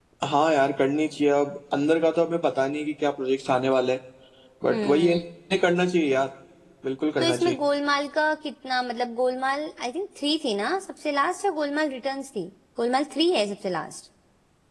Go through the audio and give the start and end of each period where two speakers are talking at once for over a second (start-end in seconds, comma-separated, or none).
none